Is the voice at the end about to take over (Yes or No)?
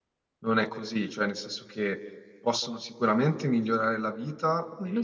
No